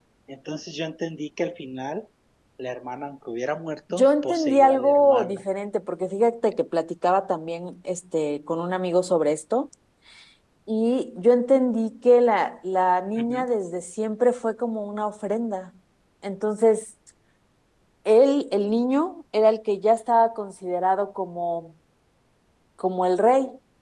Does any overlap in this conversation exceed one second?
Yes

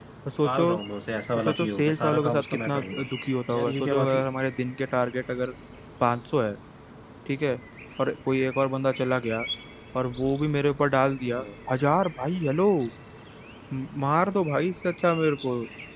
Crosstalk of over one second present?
Yes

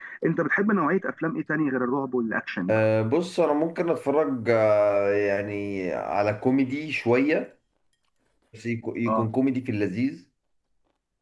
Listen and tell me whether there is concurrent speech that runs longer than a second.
No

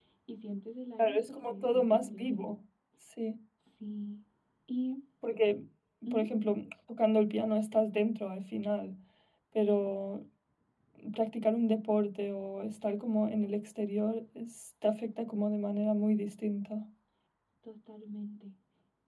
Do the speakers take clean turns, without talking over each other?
No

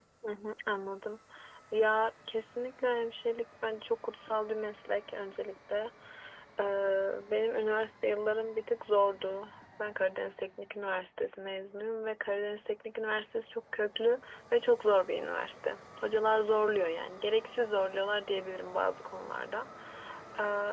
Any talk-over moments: No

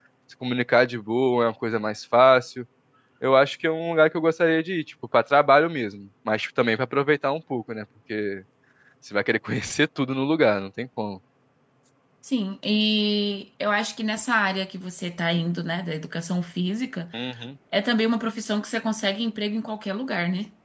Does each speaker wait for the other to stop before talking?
Yes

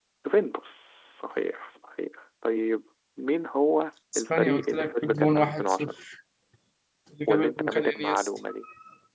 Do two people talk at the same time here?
Yes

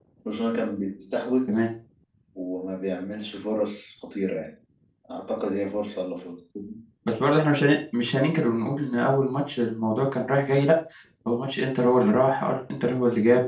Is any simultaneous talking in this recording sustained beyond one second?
No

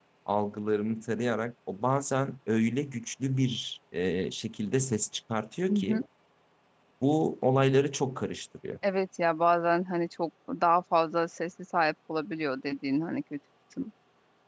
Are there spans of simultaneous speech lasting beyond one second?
No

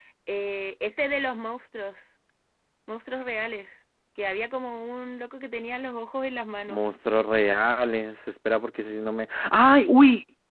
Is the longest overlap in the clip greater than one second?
No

